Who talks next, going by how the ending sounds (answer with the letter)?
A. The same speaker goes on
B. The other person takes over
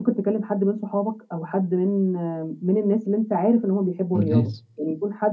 A